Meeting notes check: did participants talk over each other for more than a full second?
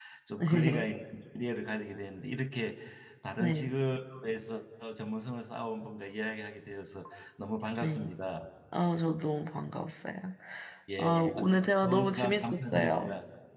Yes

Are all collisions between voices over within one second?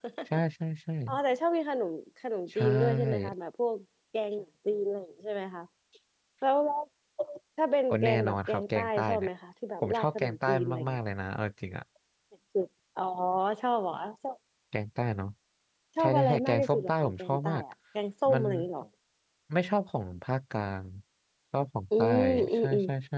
No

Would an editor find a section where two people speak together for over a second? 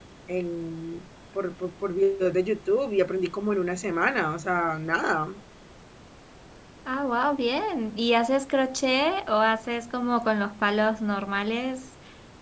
No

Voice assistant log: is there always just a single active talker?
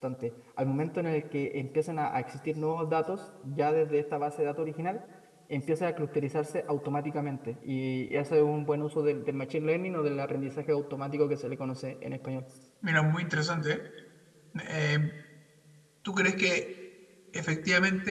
Yes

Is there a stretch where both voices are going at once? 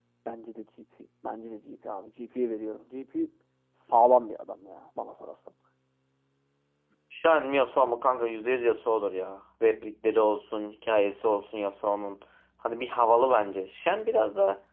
No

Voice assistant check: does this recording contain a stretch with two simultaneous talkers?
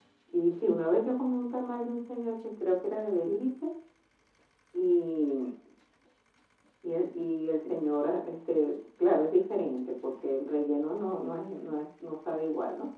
No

